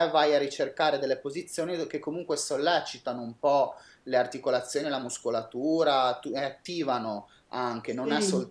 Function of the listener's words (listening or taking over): listening